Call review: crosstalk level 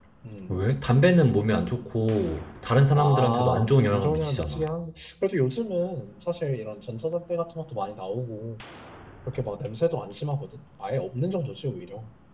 present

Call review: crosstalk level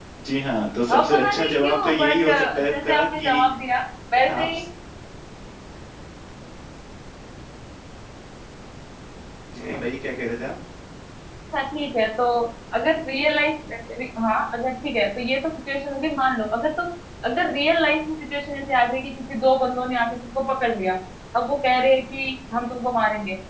present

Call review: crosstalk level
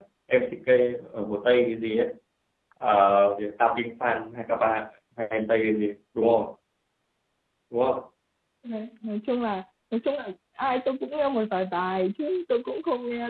none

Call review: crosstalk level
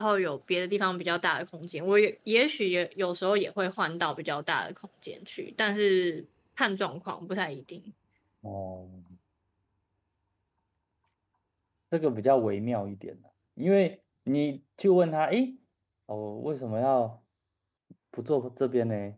none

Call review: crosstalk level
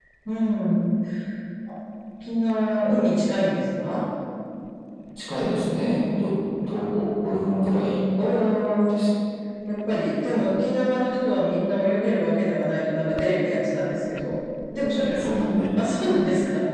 none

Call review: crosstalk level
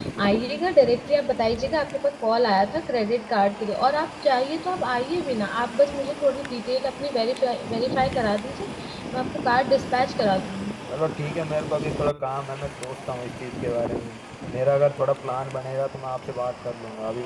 none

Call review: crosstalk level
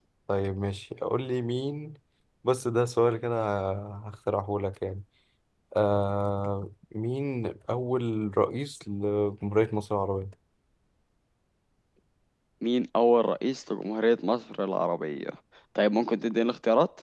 none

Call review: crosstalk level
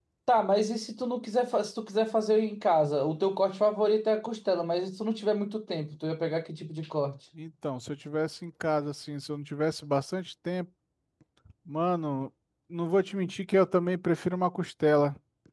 none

